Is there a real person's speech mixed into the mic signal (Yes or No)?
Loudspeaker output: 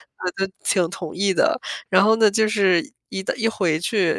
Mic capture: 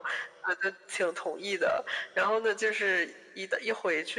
No